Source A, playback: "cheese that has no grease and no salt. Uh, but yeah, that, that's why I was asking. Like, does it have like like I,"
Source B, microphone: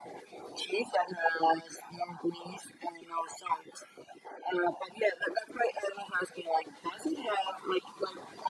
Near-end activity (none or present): none